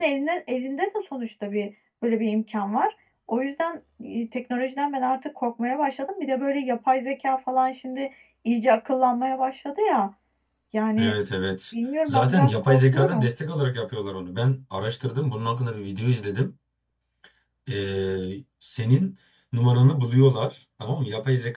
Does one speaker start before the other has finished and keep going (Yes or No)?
Yes